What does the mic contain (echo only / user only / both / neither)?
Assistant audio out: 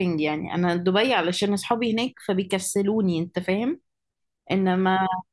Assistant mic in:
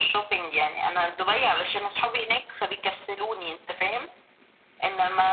echo only